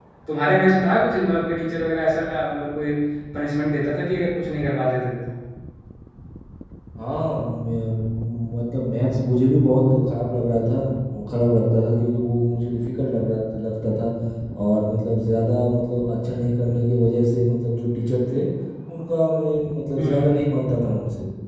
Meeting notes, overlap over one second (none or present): none